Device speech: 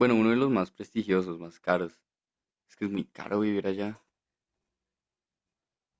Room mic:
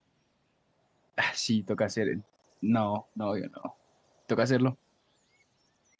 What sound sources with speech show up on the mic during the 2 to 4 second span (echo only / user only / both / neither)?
user only